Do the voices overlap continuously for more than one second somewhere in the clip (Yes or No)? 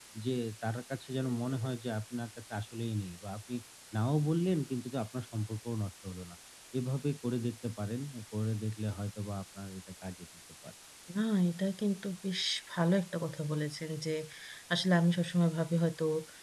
No